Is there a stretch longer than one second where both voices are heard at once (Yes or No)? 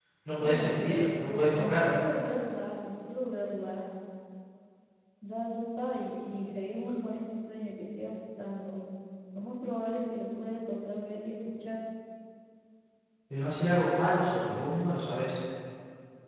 Yes